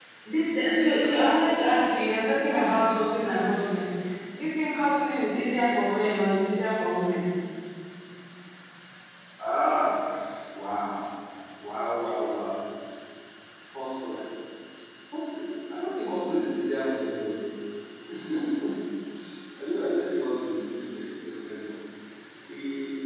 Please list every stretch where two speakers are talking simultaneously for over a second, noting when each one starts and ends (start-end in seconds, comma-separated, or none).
none